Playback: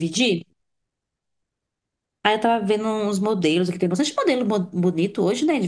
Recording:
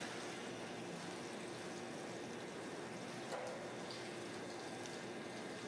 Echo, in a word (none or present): none